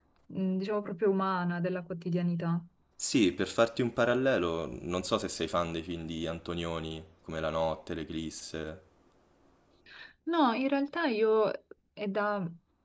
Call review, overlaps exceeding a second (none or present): none